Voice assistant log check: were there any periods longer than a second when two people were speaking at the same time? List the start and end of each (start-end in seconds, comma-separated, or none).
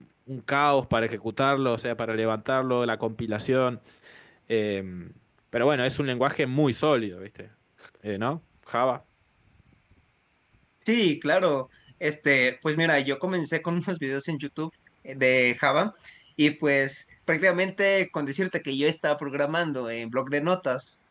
none